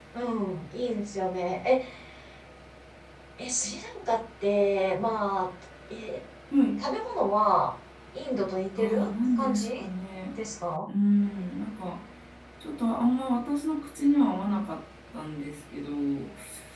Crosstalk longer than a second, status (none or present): none